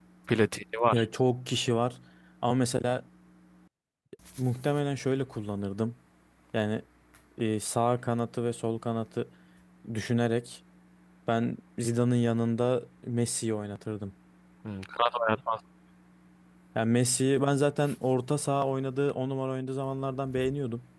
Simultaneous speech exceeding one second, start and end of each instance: none

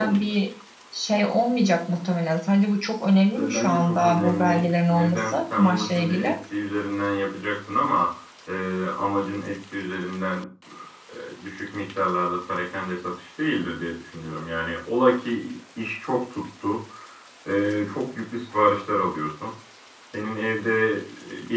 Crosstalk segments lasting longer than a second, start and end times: 3.4-6.3

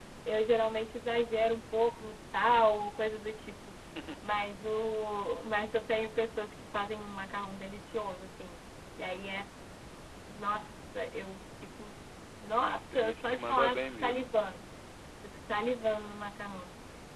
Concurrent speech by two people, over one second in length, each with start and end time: 12.6-14.2

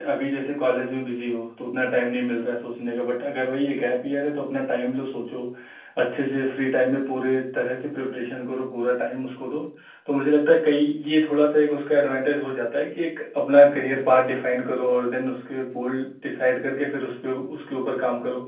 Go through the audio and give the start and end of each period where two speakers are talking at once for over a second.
none

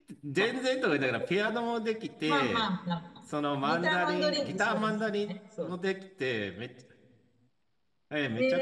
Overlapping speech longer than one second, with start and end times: 3.6-5.7

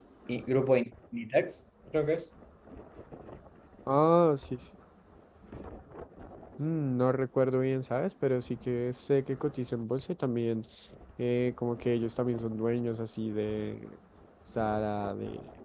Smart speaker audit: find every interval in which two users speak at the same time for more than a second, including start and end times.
none

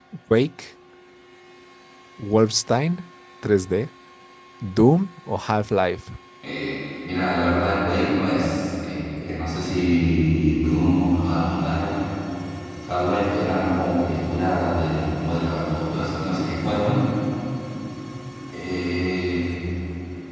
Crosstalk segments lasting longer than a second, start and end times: none

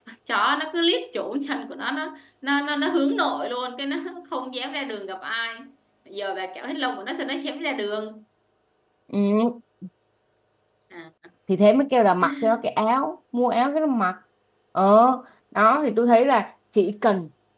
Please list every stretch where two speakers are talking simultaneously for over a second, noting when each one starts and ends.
none

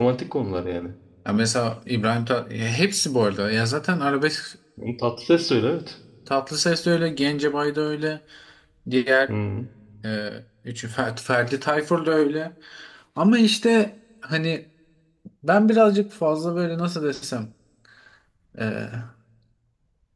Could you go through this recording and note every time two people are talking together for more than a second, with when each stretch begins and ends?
none

